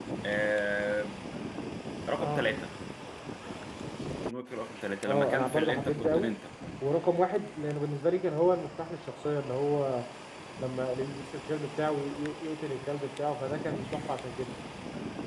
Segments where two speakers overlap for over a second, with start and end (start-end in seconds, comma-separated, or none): 5.1-6.3